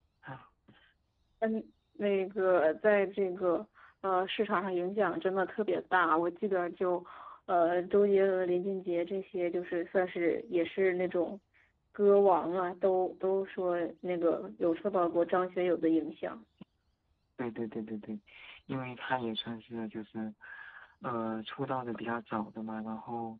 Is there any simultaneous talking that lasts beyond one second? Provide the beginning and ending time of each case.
none

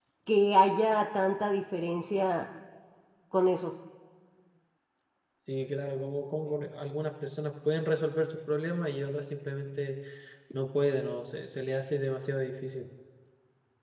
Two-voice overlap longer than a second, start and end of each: none

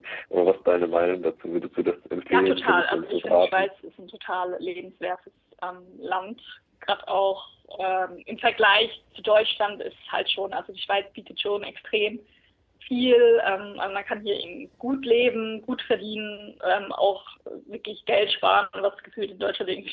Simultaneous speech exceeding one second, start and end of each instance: 2.3-3.7

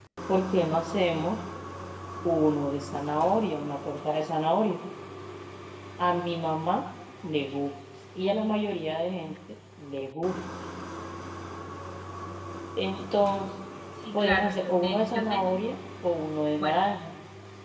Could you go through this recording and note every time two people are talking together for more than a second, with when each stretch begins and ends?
14.1-15.5

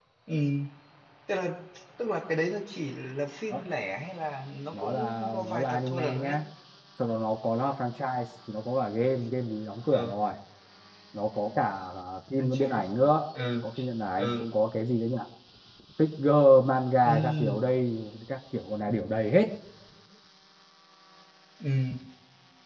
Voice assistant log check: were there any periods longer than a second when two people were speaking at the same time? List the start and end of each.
4.7-6.3

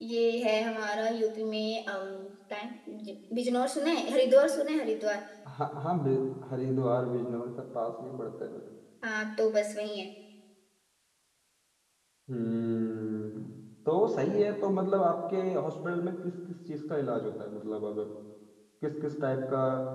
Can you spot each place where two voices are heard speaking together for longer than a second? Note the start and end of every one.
none

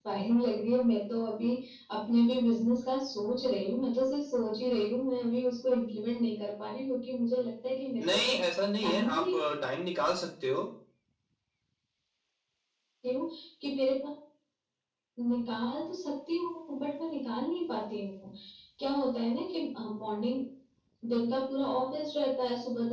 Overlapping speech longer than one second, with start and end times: none

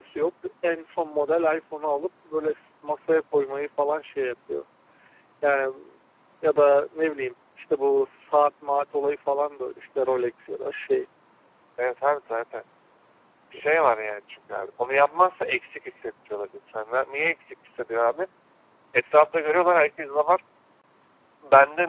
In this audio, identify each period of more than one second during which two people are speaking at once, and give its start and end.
none

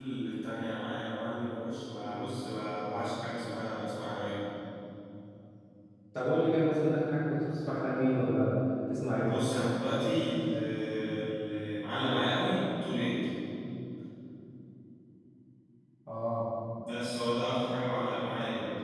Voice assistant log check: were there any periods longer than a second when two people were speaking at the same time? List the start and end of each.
none

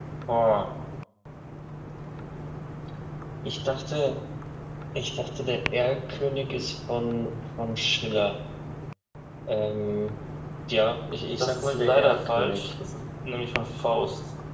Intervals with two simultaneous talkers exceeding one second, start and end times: 11.4-12.7

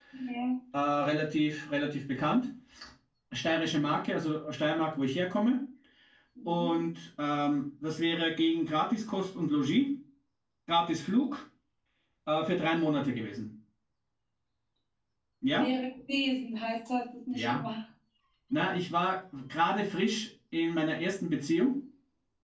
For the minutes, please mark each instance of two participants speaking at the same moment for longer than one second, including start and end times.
none

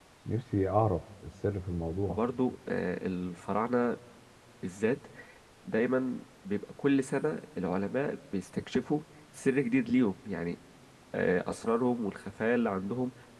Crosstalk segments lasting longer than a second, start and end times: none

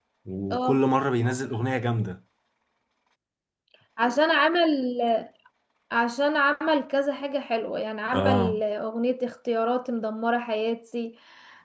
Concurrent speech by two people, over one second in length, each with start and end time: none

